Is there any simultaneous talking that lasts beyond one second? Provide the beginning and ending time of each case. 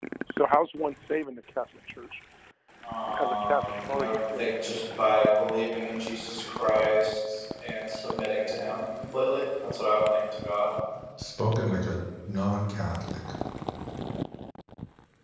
3.2-4.5

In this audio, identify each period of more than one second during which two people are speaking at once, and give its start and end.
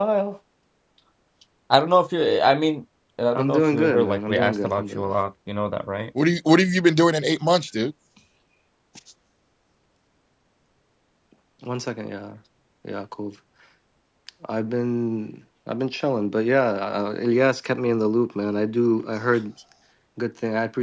3.4-5.2

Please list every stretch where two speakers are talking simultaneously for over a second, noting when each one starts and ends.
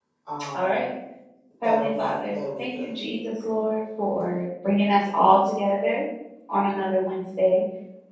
1.6-2.9

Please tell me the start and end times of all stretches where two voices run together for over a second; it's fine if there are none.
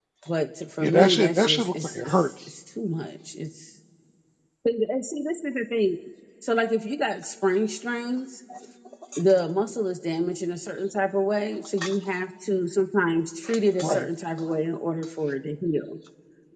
0.8-2.3

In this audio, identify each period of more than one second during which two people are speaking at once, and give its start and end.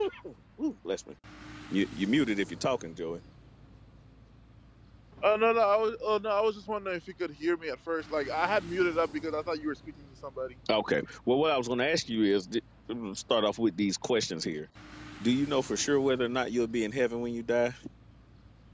none

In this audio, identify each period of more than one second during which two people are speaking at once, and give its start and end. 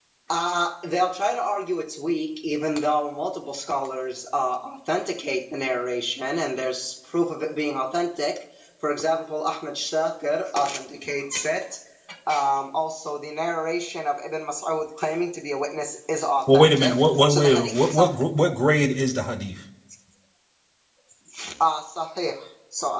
16.5-18.4

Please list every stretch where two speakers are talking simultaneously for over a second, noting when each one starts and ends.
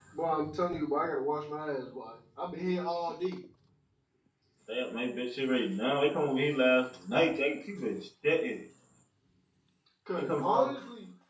none

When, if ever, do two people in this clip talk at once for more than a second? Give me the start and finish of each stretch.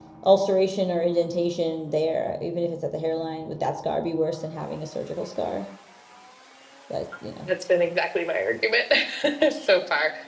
none

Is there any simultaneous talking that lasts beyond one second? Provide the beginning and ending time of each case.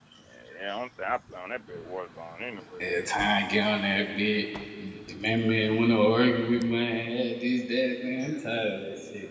none

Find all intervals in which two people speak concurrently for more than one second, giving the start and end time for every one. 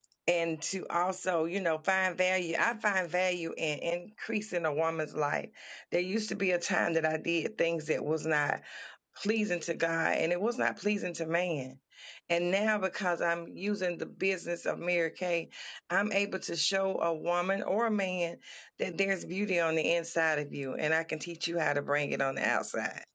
none

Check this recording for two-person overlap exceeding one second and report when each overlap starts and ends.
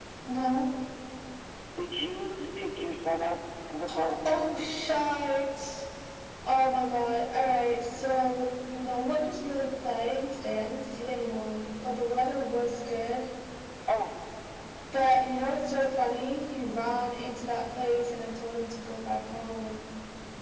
none

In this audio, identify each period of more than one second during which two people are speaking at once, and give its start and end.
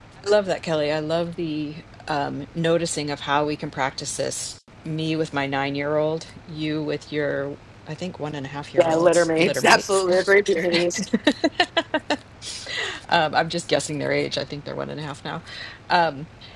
8.8-10.3

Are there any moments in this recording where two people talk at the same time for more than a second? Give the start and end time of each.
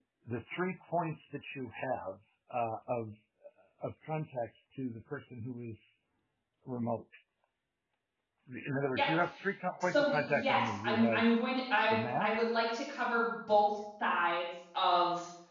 9.8-11.2

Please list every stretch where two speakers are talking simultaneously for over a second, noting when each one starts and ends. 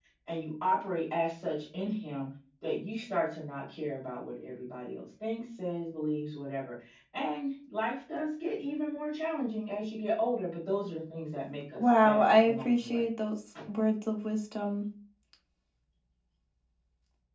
11.8-13.1

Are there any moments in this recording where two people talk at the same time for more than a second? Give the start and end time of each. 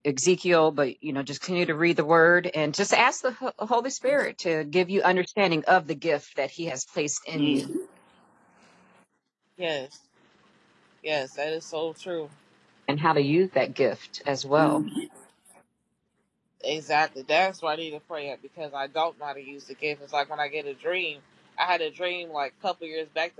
none

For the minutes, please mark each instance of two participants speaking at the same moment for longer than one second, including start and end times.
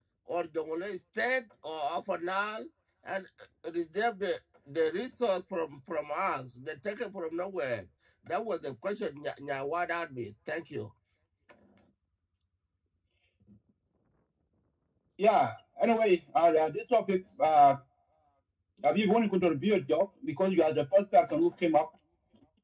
none

